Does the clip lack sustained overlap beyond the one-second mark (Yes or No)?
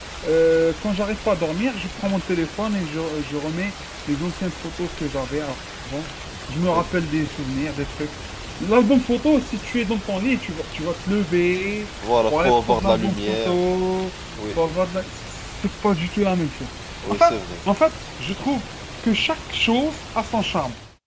No